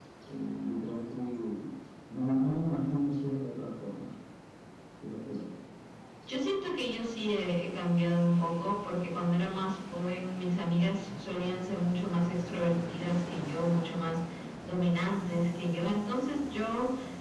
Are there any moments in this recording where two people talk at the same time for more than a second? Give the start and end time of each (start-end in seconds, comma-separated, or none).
none